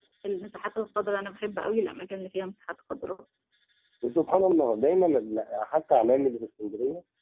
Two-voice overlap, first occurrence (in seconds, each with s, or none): none